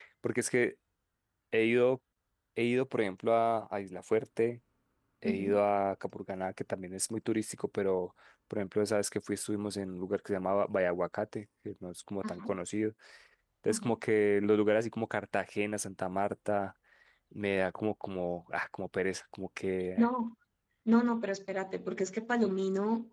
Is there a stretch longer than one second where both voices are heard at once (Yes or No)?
No